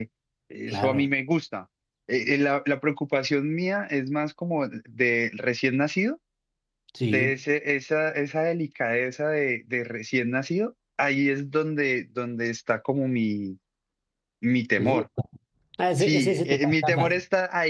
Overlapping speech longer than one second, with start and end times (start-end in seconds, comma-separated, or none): 16.0-17.2